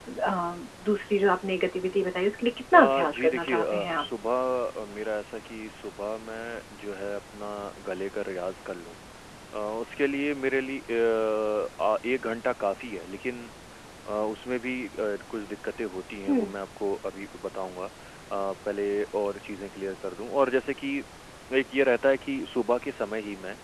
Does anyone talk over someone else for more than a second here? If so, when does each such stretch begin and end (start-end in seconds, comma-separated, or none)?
2.7-4.1